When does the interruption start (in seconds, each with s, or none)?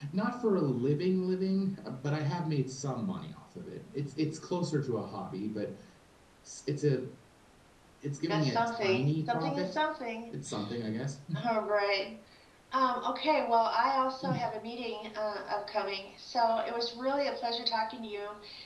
8.3 s